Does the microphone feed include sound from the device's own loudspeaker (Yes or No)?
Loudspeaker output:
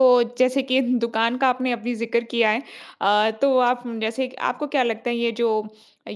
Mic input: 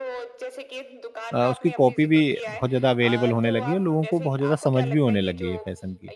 Yes